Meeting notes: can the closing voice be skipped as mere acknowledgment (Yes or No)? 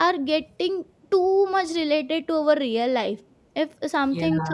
Yes